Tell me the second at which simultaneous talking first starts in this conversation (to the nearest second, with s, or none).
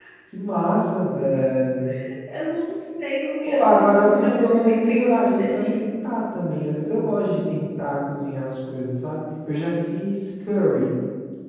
3 s